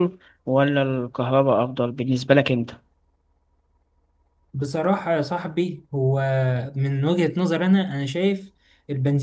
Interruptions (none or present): none